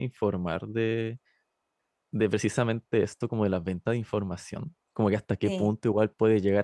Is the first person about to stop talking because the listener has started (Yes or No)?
No